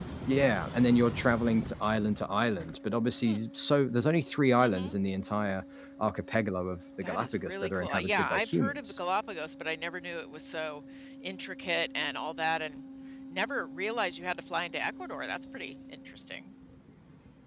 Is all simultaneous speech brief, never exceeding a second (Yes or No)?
No